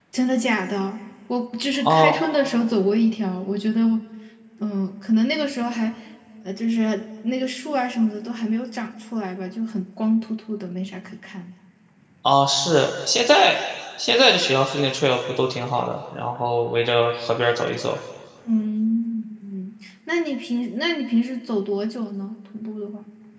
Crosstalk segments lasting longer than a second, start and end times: none

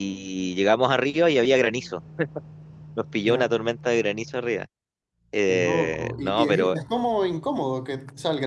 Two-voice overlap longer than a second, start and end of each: 5.5-6.8

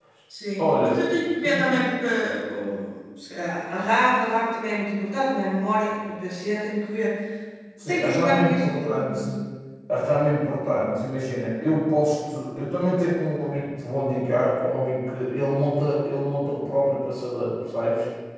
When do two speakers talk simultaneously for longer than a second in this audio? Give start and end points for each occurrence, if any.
7.9-9.3

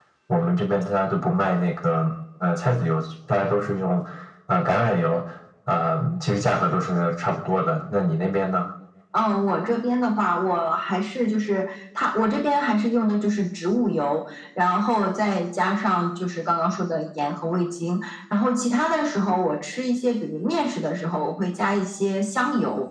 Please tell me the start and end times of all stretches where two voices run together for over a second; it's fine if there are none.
none

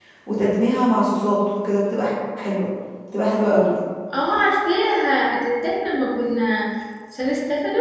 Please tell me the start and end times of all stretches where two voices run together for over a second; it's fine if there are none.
none

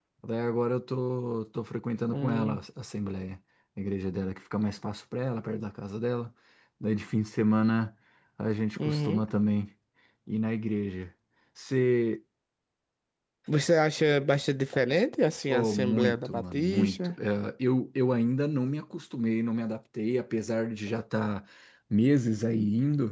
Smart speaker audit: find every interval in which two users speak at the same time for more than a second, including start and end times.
15.5-17.1

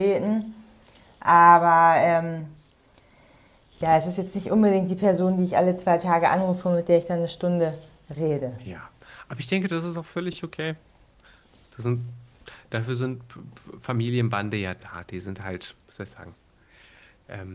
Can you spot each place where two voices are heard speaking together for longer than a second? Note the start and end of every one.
none

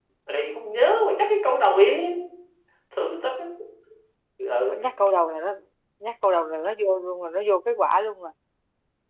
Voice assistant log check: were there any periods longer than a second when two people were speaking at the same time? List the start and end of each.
none

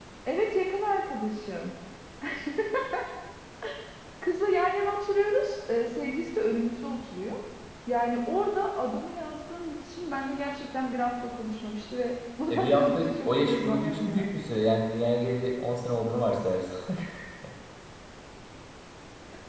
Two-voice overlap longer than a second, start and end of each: 12.5-14.3

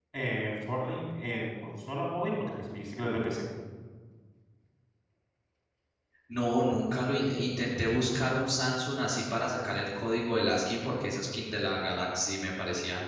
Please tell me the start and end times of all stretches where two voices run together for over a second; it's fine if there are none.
none

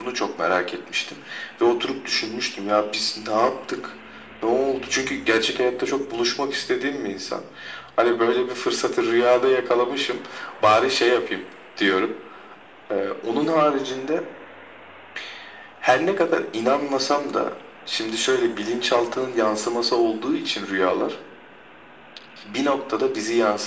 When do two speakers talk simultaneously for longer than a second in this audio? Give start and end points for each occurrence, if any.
none

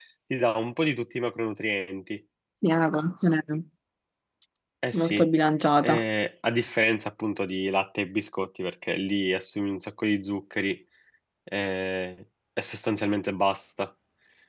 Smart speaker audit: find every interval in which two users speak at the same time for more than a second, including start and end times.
none

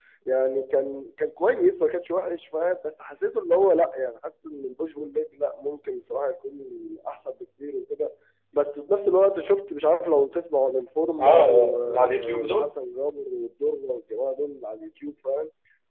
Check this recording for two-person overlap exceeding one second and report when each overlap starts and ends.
11.2-12.7

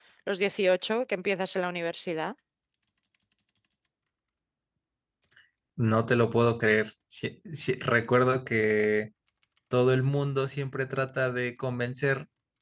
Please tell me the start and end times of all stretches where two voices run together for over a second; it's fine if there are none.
none

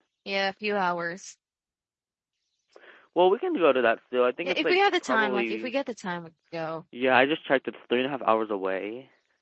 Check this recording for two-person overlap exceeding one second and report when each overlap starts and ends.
4.4-5.7

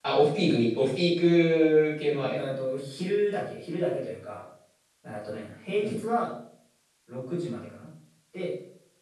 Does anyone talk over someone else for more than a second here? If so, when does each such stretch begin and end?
none

